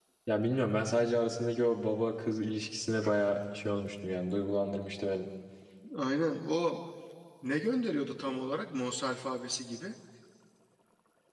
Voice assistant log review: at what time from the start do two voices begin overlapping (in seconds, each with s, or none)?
none